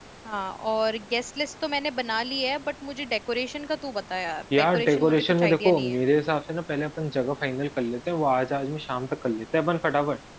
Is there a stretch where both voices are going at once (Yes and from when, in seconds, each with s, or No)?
Yes, from 4.5 s